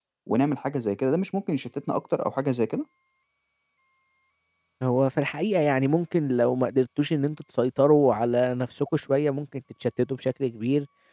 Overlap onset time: none

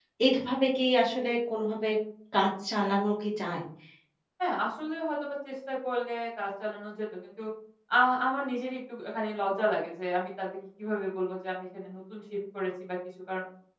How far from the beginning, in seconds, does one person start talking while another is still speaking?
none

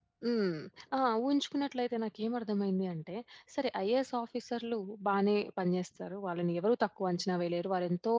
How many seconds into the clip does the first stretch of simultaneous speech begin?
none

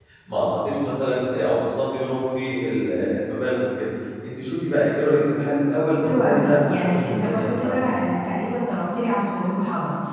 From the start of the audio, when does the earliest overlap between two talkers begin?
6.0 s

